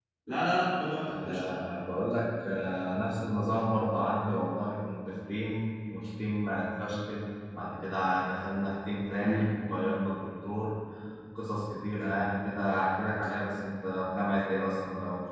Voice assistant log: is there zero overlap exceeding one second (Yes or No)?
Yes